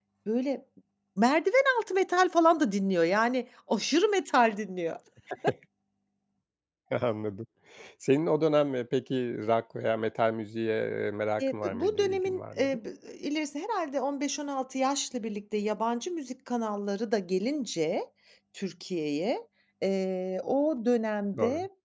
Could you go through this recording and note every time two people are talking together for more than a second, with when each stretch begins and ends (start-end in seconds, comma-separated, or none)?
11.4-12.8